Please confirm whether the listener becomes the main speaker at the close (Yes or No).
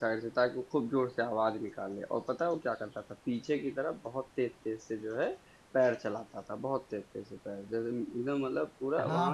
Yes